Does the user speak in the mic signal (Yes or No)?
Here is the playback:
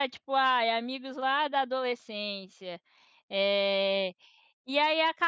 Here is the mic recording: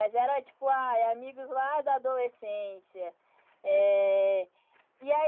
No